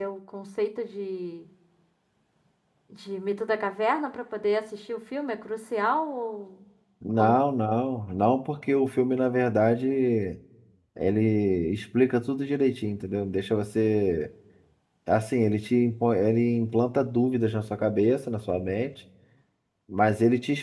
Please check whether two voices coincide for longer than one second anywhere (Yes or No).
No